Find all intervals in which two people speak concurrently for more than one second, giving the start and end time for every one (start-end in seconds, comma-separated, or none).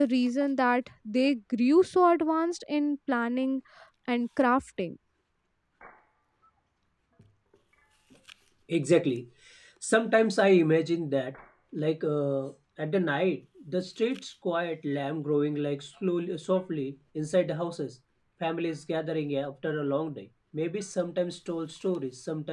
none